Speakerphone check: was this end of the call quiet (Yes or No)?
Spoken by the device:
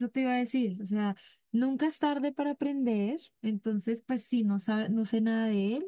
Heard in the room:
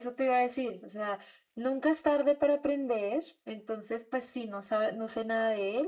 Yes